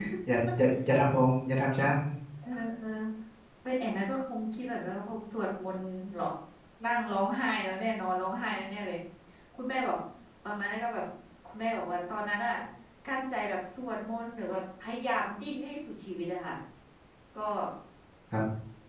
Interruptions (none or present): none